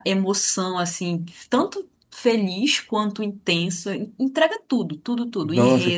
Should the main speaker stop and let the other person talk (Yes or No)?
Yes